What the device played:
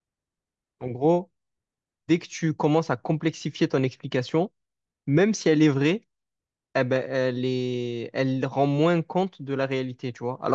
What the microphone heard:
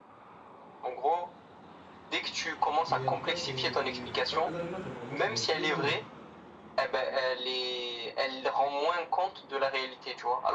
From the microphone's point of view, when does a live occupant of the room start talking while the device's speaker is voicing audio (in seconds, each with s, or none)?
2.9 s